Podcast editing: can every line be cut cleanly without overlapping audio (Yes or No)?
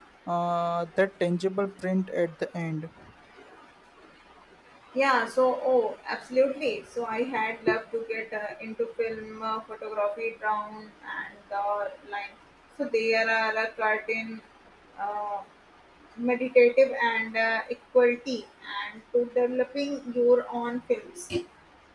Yes